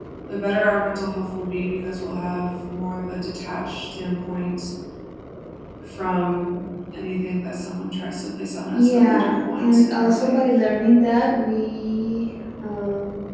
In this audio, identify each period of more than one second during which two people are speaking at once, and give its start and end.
8.7-10.4

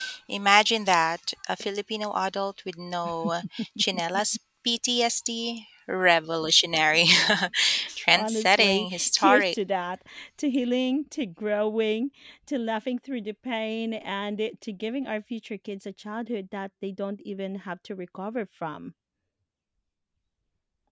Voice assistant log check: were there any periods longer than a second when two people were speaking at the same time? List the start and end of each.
8.1-9.5

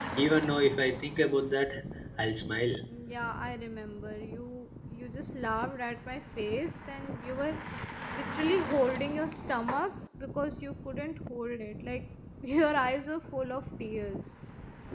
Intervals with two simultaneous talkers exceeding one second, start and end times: none

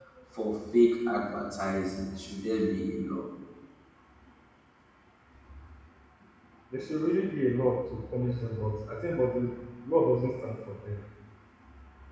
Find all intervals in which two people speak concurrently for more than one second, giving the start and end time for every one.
none

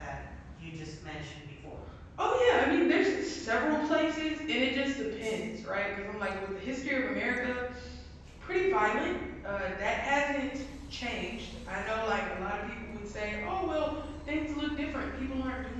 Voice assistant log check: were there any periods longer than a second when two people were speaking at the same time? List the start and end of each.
none

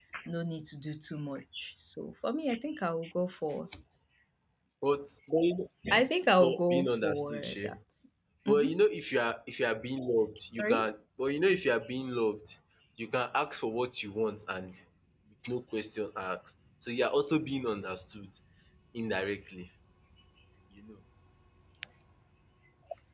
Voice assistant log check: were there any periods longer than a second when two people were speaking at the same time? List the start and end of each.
6.4-7.8

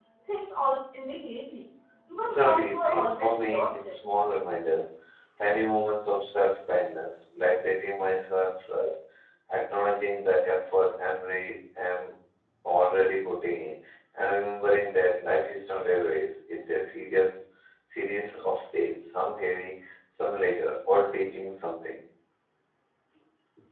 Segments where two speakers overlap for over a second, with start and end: 2.1-4.0

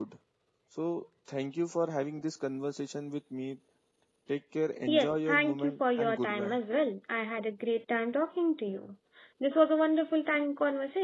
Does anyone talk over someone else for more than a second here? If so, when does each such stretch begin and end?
4.9-6.6

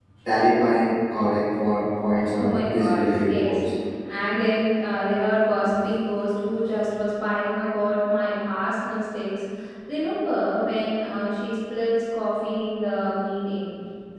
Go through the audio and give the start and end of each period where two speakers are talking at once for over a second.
2.4-3.6

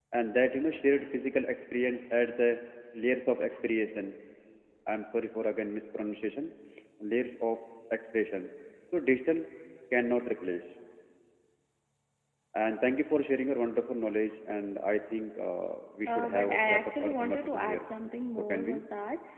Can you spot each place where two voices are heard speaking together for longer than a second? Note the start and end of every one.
16.1-17.9

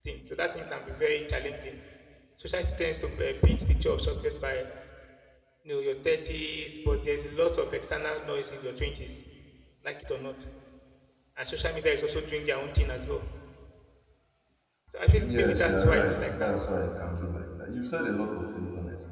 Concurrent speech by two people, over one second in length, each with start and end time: 15.2-16.5

